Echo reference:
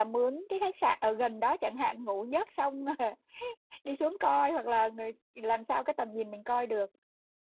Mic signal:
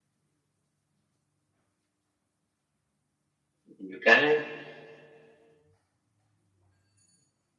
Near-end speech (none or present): present